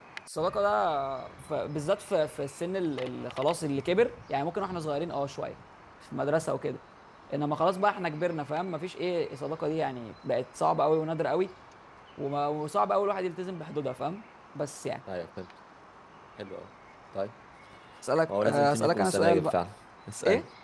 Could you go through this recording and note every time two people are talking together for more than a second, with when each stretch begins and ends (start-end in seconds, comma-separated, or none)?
18.3-19.6